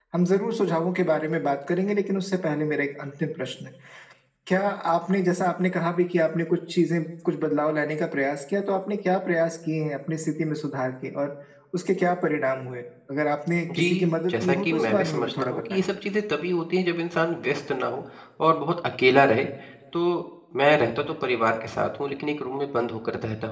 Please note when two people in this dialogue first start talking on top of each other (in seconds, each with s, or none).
13.7 s